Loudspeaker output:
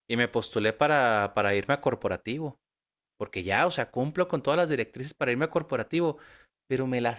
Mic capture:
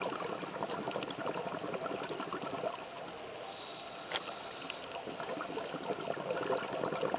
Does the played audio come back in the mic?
No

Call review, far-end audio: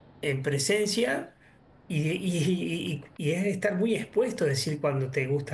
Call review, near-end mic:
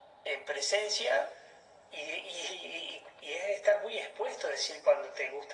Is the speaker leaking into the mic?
Yes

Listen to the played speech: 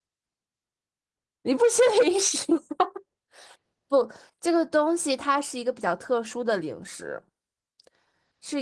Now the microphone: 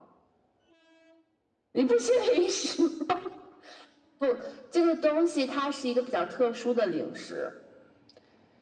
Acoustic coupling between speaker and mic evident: Yes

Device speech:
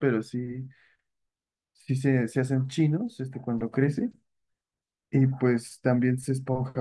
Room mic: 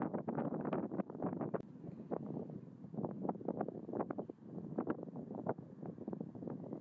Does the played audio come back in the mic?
No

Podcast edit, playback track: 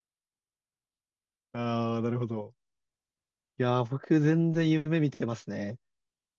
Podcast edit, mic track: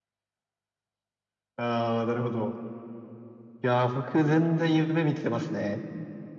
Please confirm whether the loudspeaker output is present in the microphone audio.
Yes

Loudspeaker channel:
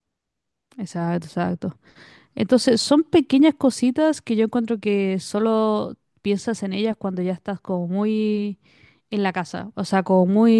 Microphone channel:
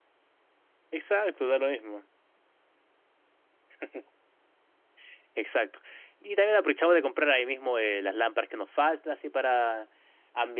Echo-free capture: Yes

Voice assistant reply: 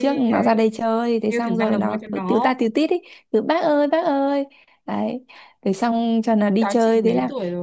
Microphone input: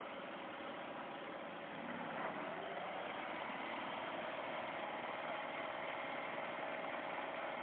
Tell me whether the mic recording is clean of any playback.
Yes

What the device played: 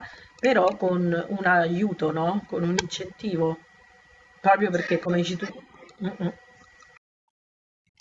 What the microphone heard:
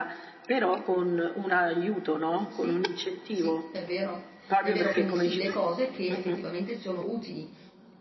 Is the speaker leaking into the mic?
Yes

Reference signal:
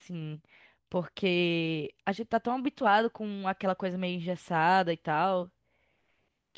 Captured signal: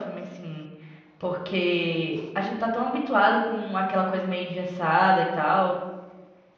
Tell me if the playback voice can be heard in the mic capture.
Yes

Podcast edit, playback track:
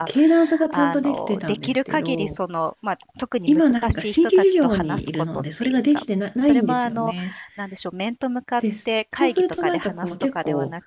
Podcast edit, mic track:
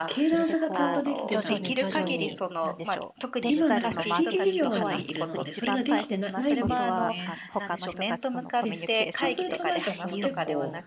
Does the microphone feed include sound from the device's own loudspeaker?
Yes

